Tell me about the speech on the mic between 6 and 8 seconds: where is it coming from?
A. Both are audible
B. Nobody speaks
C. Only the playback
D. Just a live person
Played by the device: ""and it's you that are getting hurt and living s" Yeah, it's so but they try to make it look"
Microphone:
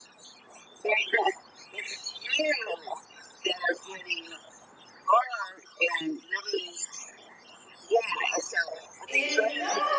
C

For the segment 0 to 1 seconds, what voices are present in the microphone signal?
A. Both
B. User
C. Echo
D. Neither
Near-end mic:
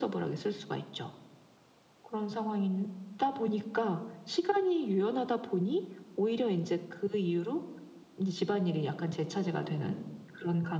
C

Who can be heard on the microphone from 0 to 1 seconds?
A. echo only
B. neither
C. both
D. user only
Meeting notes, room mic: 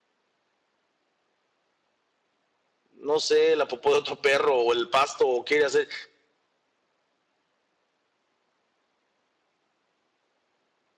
B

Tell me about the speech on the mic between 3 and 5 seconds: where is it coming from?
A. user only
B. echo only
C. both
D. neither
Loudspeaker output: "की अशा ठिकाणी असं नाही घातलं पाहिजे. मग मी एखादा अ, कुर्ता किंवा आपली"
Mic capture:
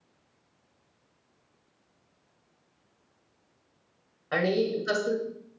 A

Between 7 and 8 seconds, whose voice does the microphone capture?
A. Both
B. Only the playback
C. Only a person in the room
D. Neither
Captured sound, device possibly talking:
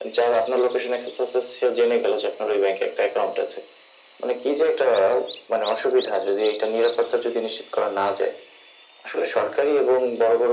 B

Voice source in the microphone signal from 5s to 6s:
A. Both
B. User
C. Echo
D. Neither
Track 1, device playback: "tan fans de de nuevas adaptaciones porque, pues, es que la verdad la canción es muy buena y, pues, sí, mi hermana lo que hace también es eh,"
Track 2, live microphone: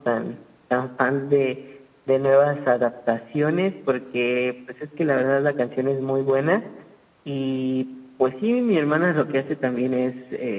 C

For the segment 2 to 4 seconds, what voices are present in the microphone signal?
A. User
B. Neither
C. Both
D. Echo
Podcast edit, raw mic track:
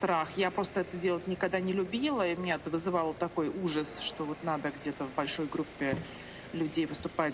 D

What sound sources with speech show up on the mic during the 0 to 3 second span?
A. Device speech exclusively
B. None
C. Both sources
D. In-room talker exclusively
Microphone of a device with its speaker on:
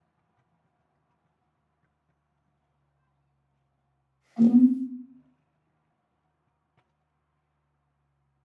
B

